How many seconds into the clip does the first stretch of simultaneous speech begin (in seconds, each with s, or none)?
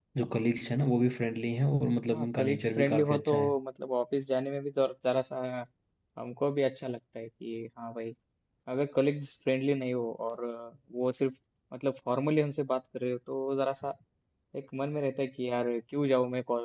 2.1 s